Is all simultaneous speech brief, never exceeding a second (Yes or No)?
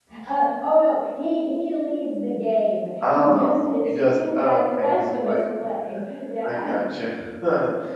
No